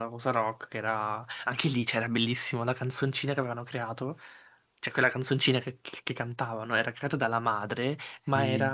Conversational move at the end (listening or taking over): listening